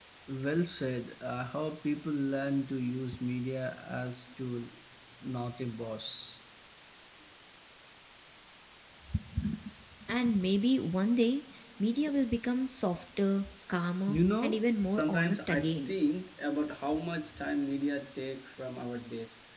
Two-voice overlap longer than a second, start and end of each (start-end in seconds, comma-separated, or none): 14.1-15.9